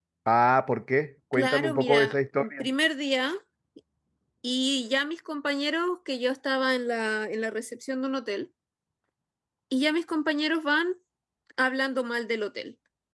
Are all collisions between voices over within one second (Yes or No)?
No